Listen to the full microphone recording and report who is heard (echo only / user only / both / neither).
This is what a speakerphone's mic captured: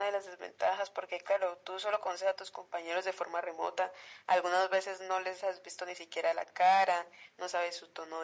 echo only